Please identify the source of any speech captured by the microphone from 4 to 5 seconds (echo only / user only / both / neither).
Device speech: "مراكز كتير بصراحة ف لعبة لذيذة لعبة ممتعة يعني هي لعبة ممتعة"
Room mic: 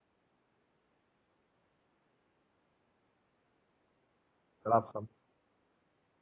user only